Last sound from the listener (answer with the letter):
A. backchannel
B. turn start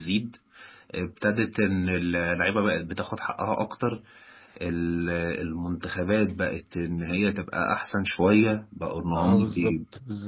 B